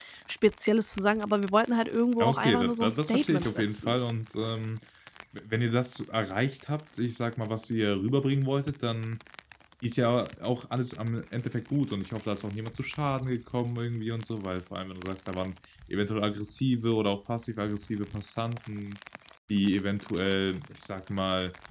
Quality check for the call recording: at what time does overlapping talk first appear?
2.2 s

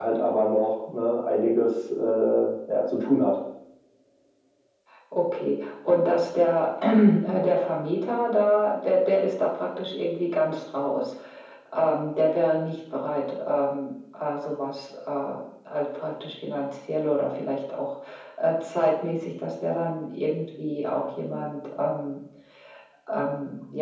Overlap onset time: none

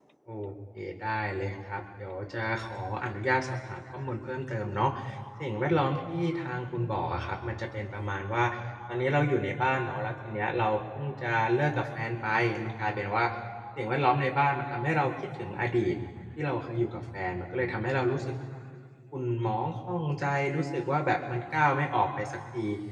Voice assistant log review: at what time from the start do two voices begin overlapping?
none

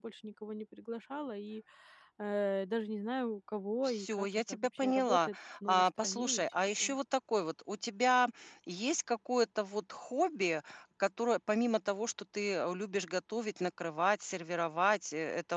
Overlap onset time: 3.8 s

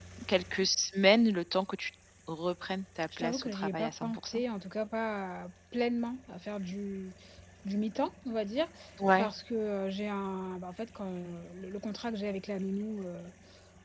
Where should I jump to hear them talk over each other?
3.1 s

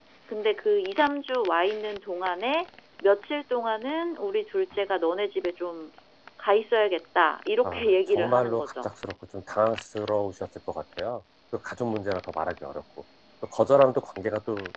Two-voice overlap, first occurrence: 7.6 s

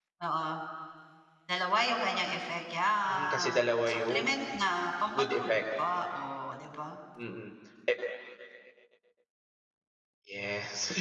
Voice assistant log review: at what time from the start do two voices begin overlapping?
3.1 s

